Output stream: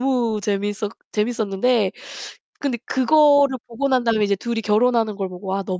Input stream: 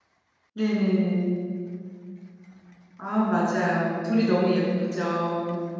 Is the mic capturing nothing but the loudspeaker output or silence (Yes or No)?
No